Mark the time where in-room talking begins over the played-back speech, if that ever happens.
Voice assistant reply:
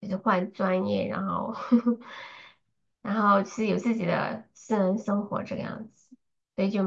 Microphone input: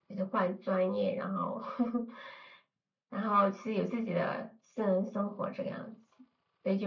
none

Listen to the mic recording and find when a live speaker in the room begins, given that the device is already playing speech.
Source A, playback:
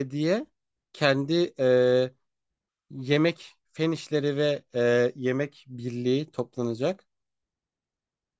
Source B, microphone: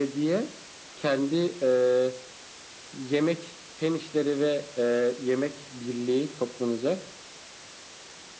none

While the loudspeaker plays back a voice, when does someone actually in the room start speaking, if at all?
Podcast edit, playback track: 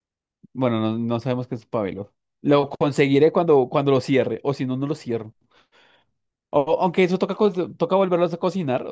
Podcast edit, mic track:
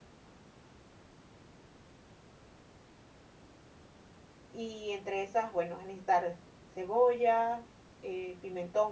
4.5 s

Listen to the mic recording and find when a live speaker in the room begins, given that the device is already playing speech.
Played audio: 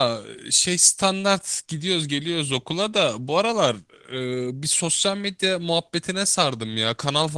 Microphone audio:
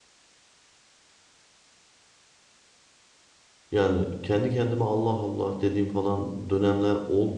3.7 s

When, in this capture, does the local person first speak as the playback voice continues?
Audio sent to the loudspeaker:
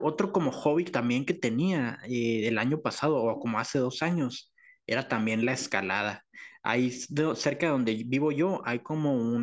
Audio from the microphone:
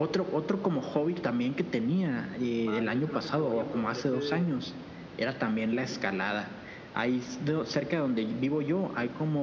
2.6 s

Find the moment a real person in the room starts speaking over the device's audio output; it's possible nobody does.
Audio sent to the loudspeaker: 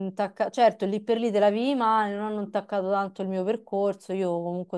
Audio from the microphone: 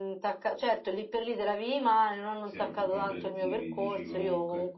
2.4 s

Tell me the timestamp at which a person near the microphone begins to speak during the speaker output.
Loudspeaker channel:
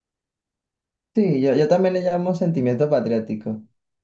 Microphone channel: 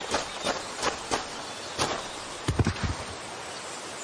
none

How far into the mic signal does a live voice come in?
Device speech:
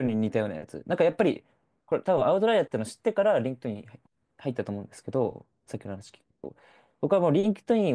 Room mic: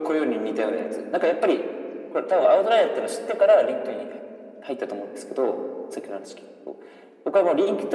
none

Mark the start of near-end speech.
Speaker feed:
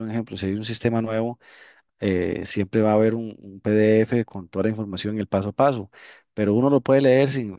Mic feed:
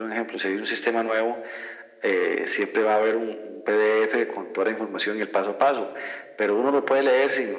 none

